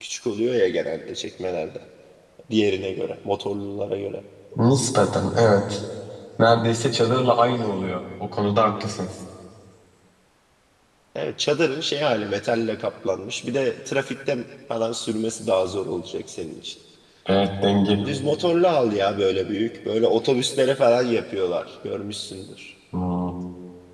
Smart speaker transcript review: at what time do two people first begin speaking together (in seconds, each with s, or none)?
none